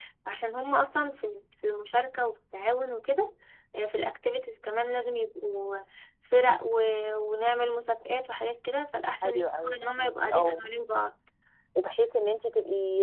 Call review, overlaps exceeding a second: present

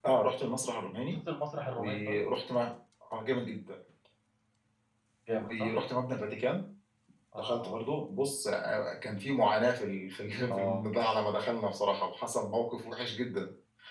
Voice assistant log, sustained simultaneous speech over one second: none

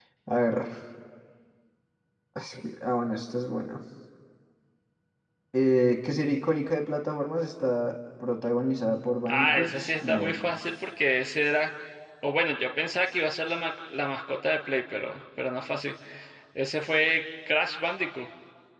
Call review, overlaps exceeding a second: present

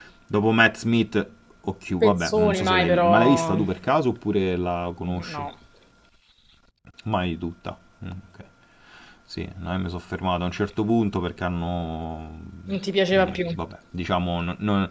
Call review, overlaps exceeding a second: present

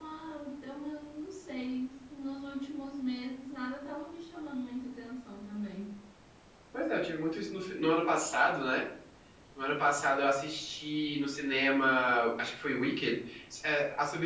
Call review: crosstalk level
none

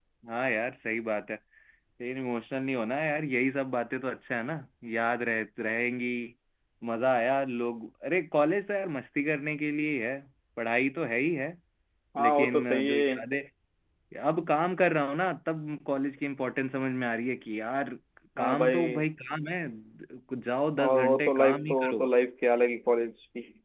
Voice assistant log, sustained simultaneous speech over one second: present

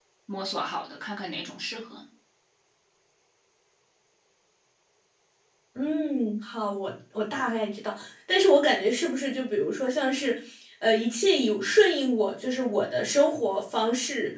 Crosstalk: none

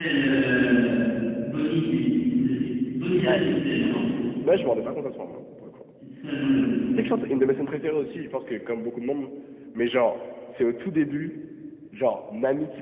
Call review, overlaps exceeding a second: none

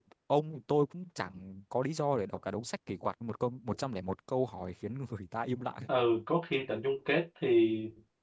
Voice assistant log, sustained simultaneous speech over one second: none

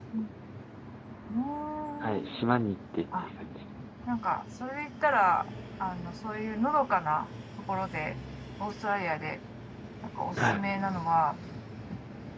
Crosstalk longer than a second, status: none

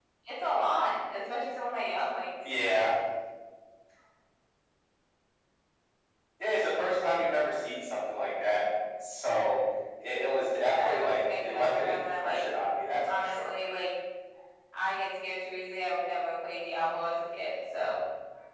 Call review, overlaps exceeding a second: present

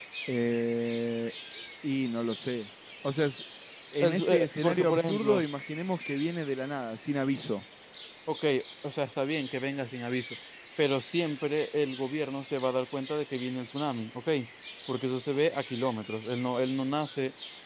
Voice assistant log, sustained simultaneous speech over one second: present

